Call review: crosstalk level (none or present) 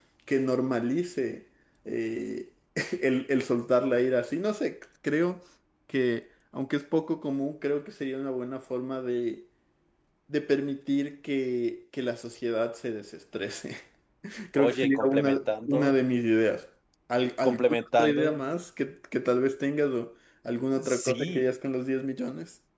present